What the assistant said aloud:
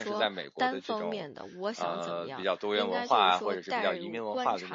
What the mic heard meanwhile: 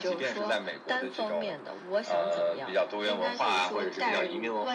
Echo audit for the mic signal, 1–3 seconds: echo only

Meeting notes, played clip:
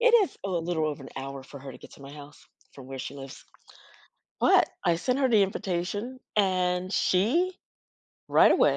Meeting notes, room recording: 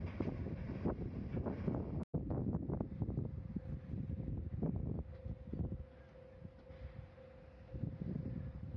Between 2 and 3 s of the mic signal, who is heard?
neither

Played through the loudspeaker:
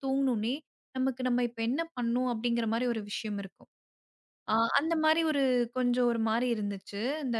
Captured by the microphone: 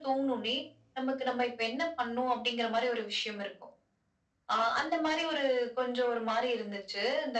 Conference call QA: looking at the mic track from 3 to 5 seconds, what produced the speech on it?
echo only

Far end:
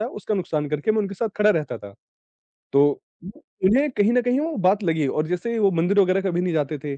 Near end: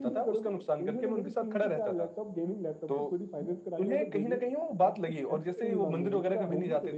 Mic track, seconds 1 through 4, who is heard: both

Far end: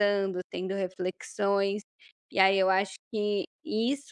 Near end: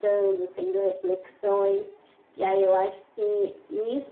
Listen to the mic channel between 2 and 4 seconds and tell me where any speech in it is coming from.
echo only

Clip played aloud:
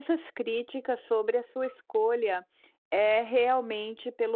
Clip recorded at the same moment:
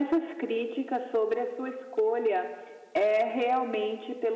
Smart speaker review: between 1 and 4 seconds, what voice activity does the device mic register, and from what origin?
echo only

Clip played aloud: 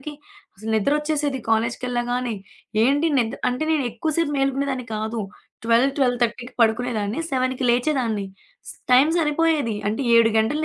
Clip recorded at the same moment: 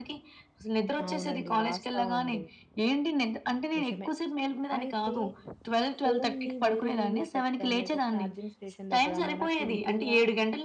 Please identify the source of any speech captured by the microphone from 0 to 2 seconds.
both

